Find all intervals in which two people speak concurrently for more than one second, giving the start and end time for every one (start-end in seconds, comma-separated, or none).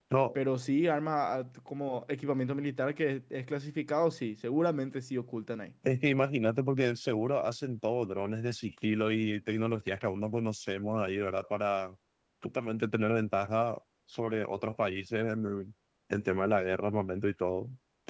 none